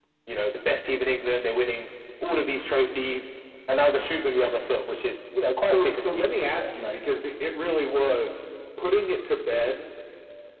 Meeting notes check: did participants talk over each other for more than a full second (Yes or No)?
Yes